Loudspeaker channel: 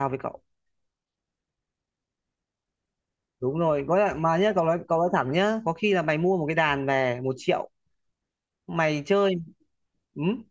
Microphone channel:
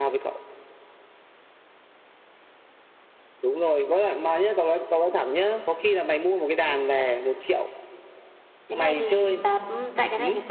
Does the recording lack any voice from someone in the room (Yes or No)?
No